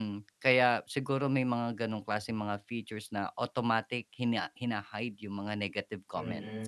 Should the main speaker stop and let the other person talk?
Yes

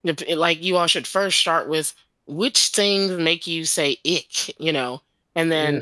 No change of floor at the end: Yes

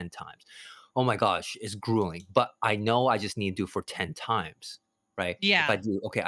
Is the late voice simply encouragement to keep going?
Yes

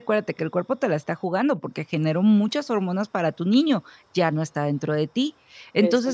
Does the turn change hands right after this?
No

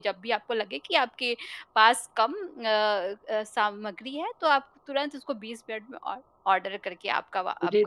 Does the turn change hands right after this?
Yes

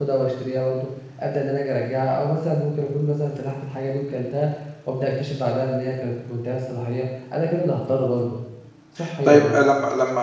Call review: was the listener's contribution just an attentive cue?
No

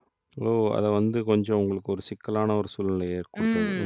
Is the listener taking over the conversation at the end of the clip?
Yes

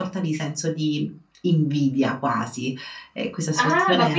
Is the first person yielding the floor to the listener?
Yes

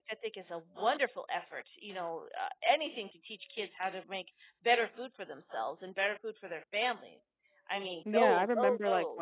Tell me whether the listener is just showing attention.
No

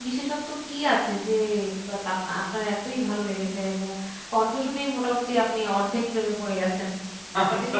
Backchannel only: No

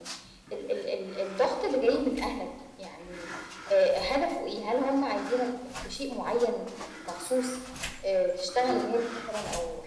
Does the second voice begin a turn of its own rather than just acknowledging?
No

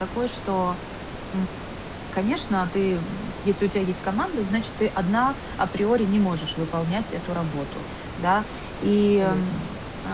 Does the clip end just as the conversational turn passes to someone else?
No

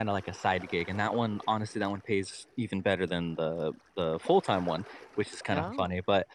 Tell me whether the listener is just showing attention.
Yes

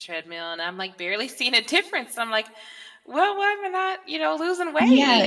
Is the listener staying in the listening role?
No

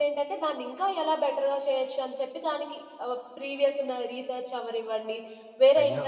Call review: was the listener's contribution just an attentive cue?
Yes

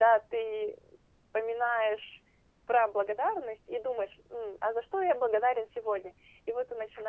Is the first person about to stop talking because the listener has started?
No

